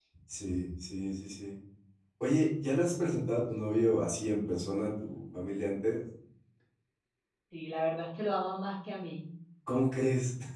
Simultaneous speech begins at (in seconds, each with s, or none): none